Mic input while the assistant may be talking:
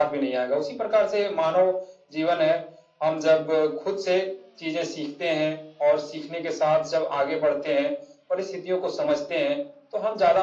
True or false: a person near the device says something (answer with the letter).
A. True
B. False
B